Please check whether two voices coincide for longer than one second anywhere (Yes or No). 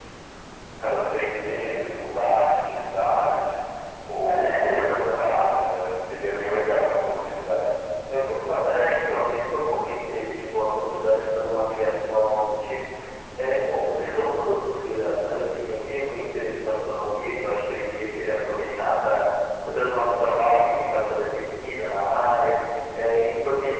Yes